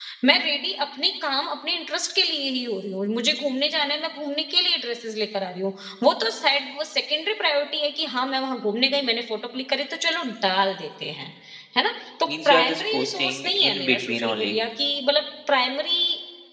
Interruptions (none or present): present